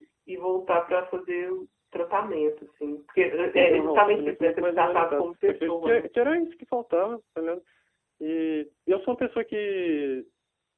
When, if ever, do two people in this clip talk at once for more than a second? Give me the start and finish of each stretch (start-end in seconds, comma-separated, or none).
3.5-6.0